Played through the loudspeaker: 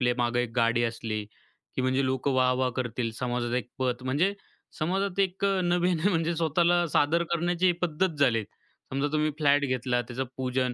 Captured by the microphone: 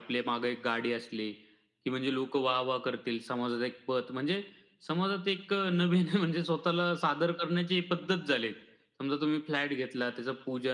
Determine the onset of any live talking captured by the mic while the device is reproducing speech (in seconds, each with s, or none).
none